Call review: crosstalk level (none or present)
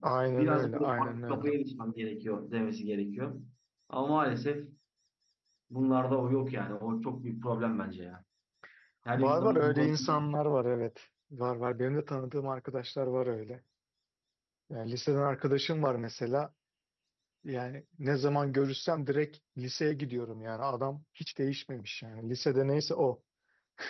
present